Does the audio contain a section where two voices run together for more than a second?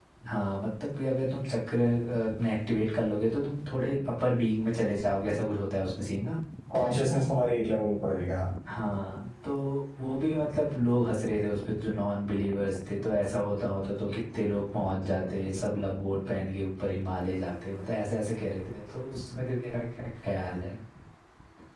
No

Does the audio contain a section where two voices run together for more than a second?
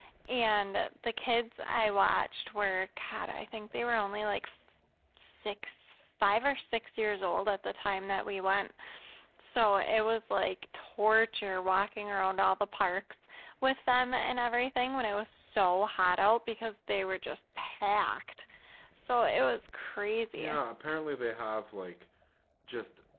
No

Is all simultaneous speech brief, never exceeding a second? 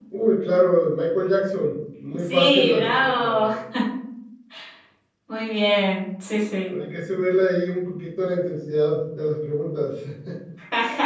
No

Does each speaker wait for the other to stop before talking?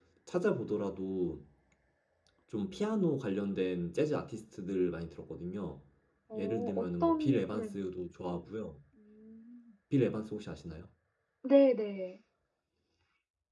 No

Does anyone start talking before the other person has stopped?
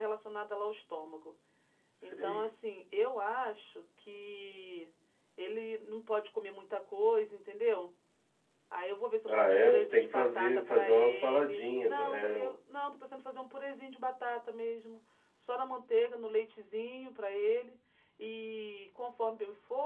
Yes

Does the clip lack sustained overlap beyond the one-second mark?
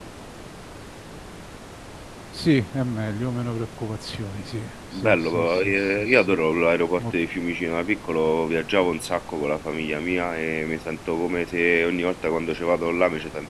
No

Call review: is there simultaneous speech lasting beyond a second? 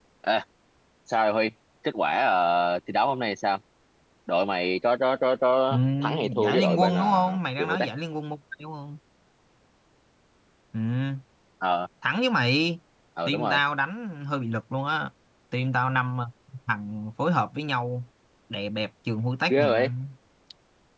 Yes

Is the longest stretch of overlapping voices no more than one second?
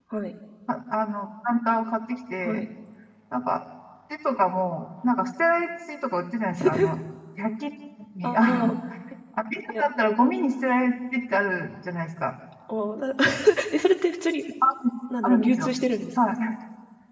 Yes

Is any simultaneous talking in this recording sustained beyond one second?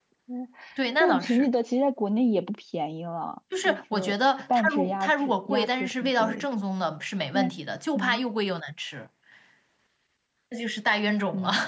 Yes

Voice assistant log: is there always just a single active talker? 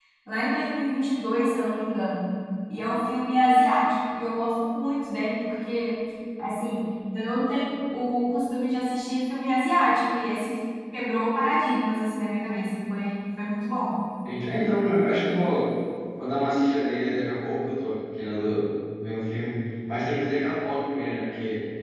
Yes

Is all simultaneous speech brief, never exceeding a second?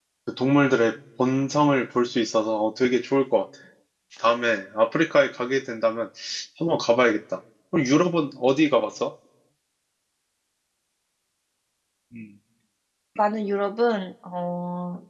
Yes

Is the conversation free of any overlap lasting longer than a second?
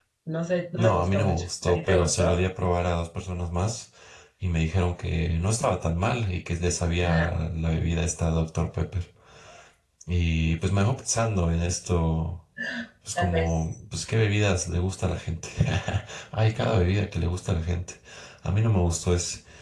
No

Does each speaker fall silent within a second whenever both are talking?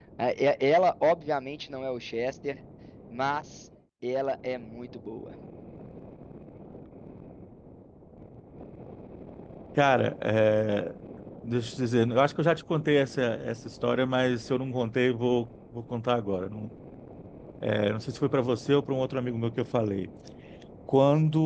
Yes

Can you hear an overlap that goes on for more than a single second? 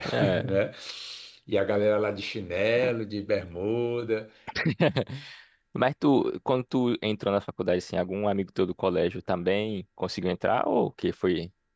No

